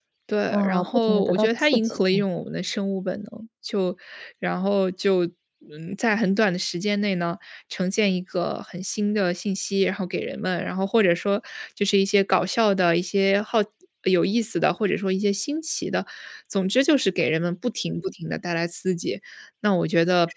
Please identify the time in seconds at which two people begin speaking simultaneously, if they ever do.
0.5 s

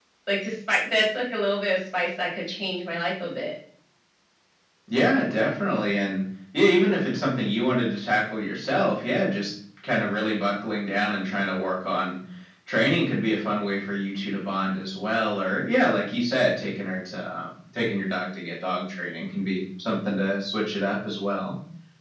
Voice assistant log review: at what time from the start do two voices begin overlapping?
none

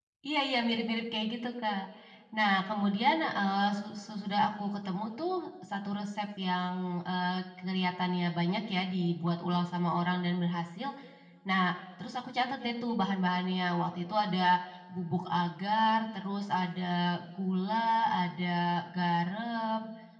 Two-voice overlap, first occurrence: none

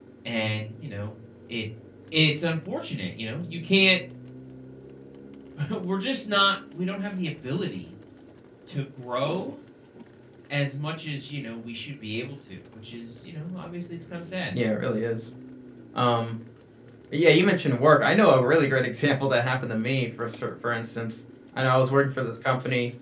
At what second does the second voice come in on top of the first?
none

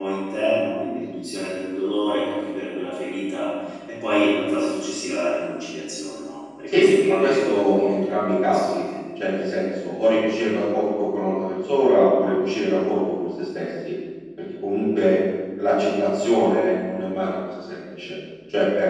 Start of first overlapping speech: 6.7 s

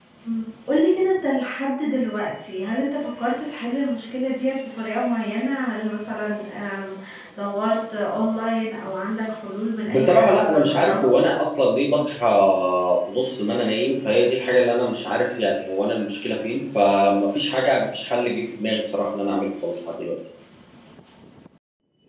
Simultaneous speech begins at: 9.9 s

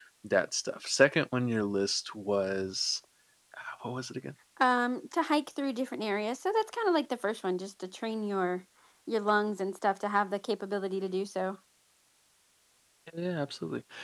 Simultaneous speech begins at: none

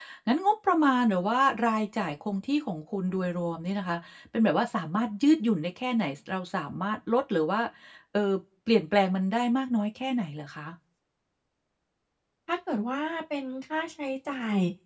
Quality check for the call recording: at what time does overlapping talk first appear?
none

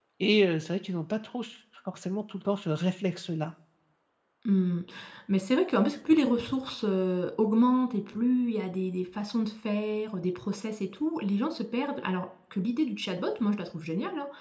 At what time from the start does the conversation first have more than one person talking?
none

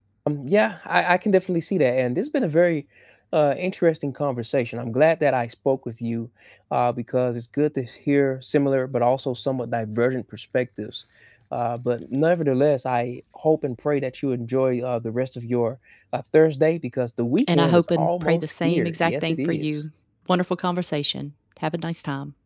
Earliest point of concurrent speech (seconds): 17.4 s

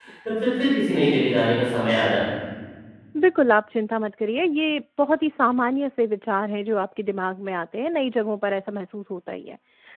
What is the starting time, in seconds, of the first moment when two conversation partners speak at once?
none

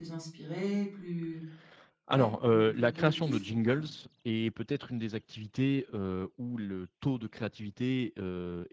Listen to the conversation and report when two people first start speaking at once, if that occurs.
2.1 s

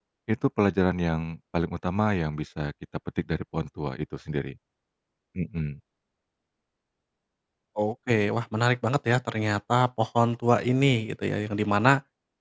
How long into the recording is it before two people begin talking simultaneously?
none

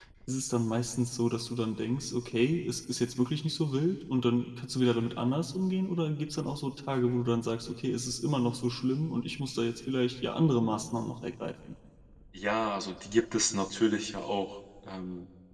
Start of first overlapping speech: none

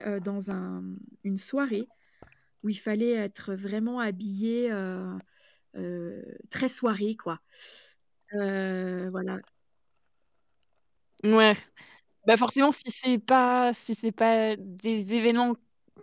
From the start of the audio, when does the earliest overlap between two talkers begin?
none

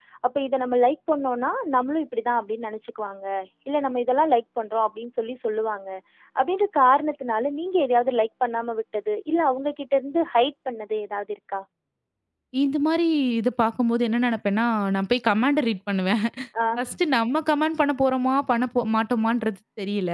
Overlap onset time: none

